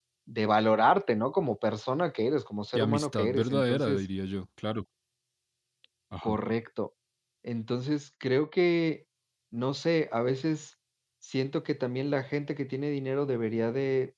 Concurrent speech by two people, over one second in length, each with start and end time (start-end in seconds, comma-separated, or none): 2.8-4.0